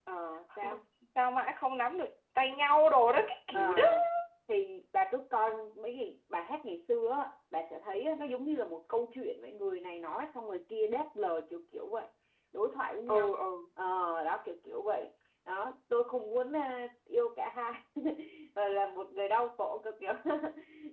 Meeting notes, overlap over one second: none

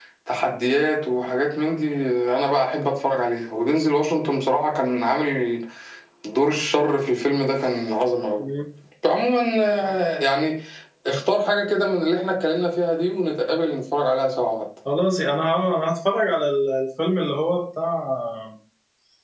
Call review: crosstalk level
none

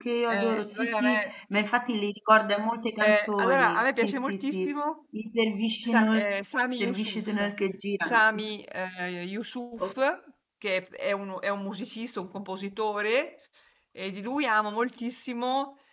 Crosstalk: present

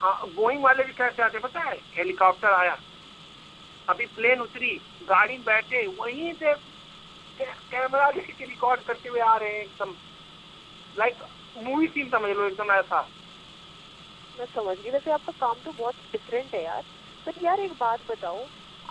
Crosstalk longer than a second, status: none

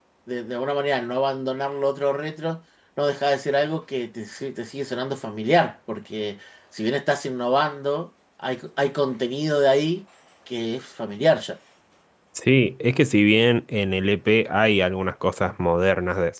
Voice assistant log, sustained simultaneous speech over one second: none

